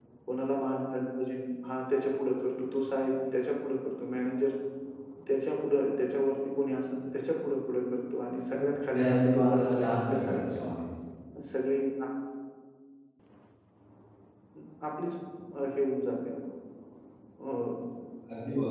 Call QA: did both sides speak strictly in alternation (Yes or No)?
No